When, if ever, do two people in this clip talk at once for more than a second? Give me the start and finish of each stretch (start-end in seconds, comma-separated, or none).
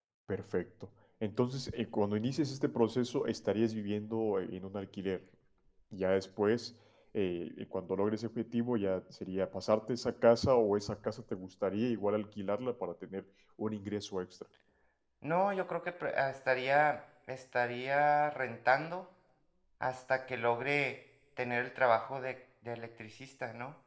none